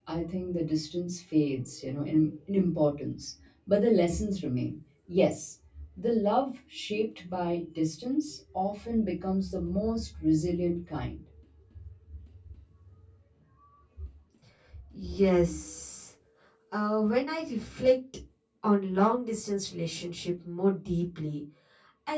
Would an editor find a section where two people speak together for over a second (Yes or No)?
No